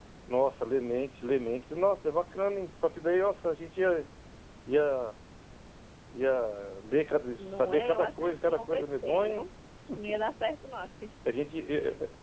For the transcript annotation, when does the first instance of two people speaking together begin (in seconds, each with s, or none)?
7.4 s